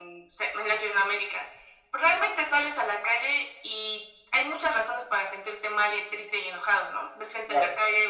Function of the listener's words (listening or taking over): listening